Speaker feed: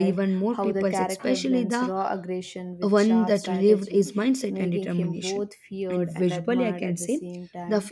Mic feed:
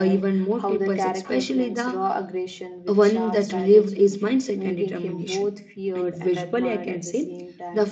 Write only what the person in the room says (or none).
none